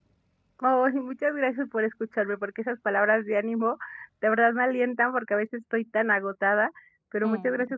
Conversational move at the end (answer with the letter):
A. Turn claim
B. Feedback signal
B